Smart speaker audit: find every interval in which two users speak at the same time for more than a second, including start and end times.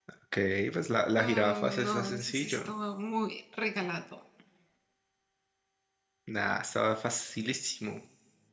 1.1-2.6

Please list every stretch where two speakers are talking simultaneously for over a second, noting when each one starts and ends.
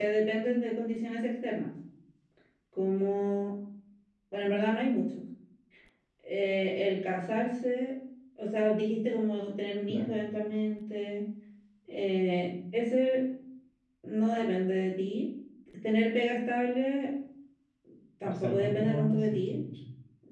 18.2-19.5

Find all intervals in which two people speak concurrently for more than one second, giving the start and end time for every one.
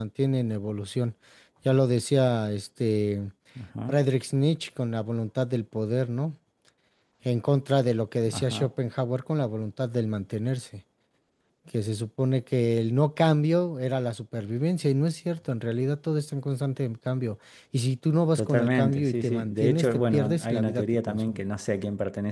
18.4-21.4

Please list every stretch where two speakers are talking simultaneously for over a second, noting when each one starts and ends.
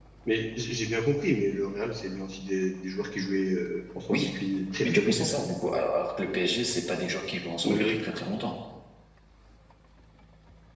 none

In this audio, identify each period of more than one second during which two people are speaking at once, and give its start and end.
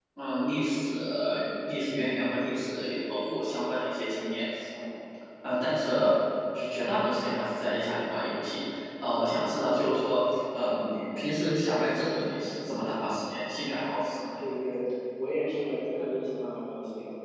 none

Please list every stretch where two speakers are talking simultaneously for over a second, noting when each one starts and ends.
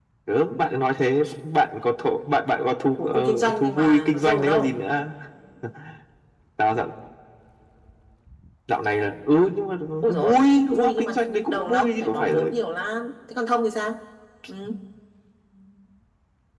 3.0-4.8, 10.7-12.5

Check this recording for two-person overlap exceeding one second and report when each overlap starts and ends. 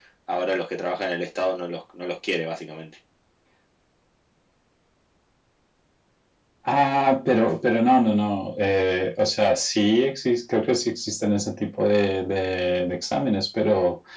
none

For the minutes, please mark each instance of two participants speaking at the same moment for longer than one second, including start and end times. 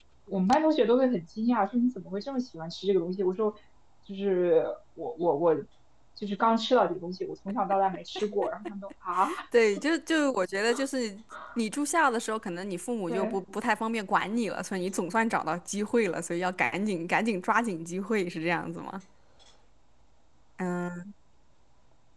none

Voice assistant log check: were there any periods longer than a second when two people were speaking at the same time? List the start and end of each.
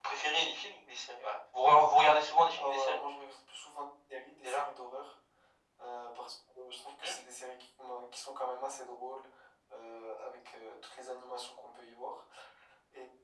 none

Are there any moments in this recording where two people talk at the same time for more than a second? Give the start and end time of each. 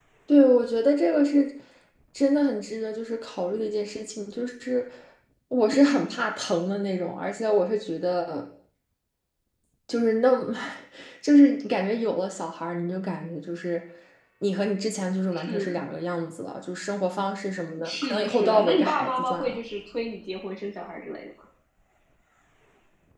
17.8-19.6

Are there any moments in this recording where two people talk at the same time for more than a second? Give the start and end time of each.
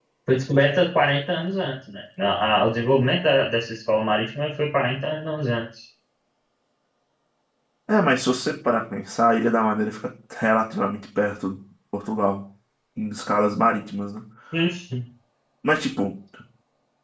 none

